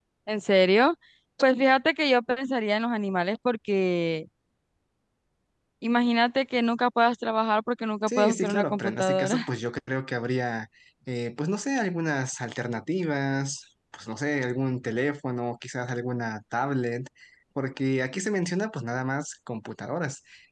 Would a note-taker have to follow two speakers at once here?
Yes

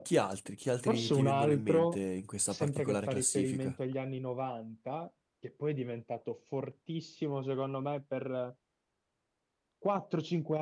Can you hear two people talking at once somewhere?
Yes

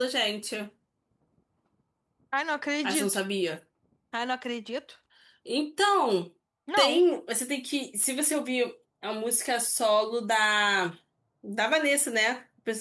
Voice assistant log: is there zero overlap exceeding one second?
Yes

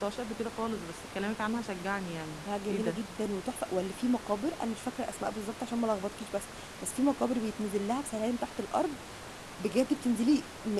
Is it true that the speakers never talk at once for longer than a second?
Yes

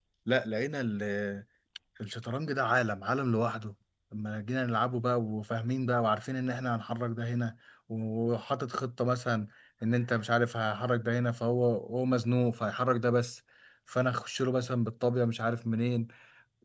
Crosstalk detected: No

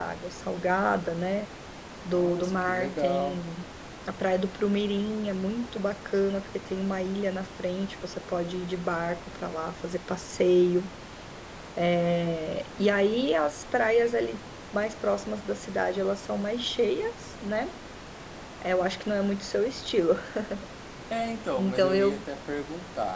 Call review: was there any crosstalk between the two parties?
Yes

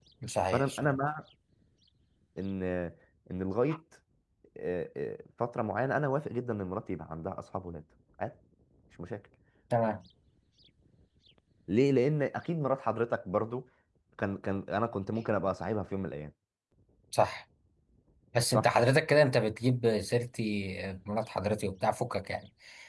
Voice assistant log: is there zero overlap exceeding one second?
Yes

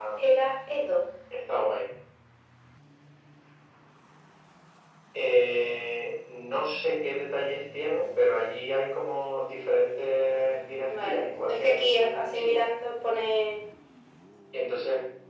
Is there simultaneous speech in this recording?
Yes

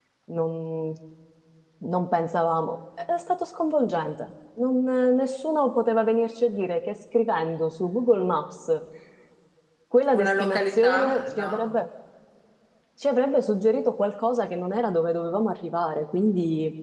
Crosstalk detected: Yes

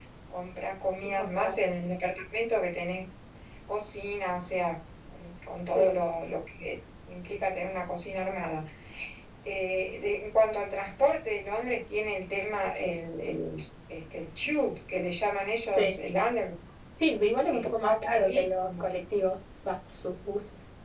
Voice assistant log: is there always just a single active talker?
No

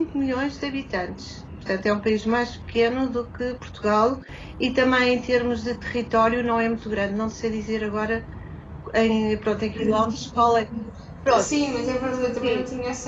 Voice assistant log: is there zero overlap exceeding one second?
Yes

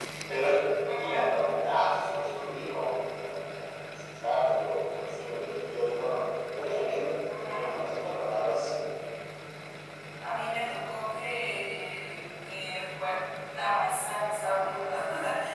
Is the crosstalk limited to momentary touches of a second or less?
Yes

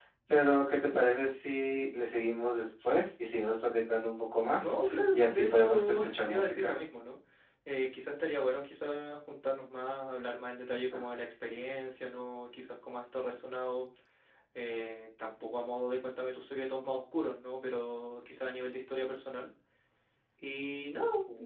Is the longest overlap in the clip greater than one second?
Yes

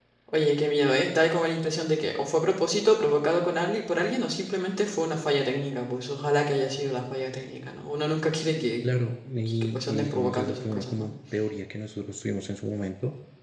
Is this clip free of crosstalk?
No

